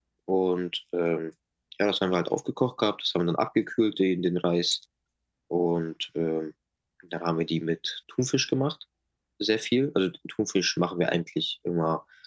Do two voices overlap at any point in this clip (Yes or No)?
No